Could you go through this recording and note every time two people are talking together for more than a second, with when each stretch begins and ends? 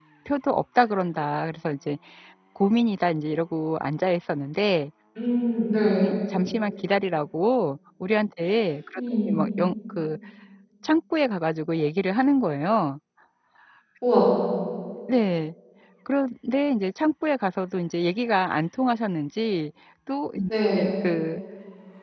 none

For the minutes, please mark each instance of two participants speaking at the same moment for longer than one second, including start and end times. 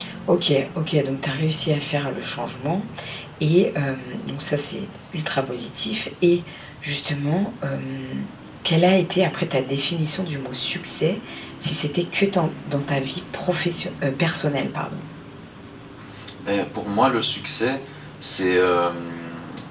none

